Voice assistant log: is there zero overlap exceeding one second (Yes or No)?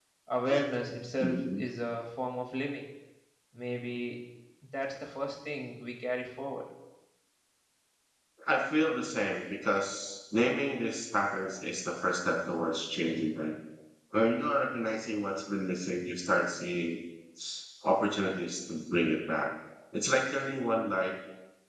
Yes